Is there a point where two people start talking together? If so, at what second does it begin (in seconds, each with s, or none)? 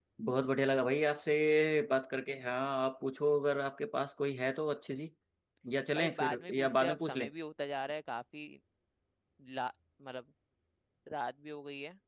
6.0 s